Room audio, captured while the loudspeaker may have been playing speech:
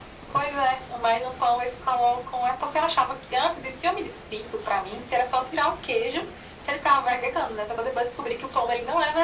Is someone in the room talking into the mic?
No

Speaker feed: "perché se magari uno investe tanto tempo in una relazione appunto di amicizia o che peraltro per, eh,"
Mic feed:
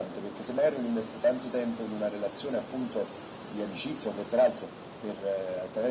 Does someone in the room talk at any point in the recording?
No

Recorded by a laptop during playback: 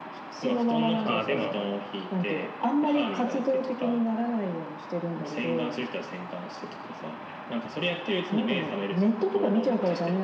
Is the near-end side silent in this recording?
No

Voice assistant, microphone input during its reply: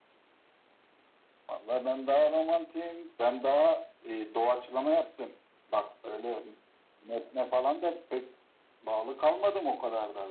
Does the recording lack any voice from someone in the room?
Yes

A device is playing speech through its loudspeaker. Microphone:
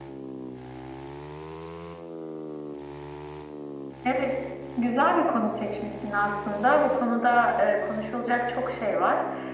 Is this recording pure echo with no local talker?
Yes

